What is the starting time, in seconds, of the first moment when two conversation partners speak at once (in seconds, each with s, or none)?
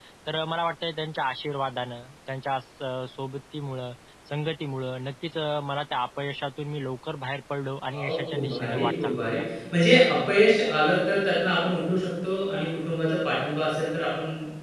7.9 s